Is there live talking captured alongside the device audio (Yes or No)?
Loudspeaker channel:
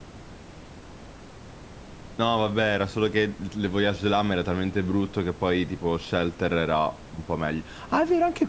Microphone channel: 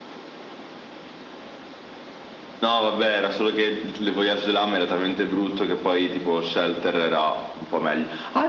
No